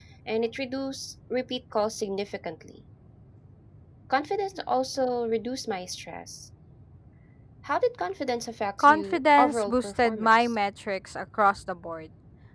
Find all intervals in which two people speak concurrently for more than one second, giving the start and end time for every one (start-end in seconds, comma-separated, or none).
8.8-10.6